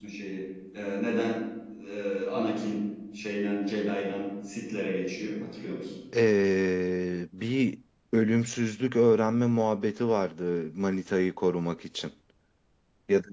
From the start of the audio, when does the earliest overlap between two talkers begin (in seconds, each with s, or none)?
none